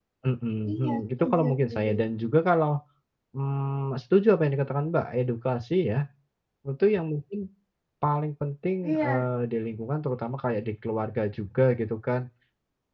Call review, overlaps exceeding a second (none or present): present